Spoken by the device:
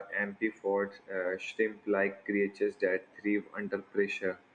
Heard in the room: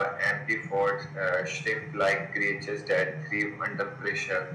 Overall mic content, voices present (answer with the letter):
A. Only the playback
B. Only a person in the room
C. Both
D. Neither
A